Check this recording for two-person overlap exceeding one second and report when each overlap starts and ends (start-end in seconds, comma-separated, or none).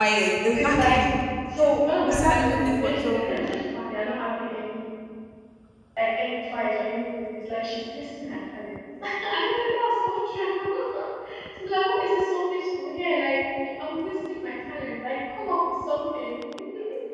1.6-3.4